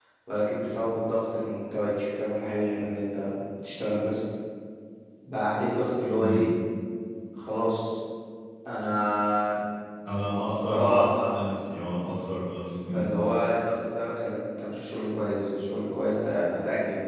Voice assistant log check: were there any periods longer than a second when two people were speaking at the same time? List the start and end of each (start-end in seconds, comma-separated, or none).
none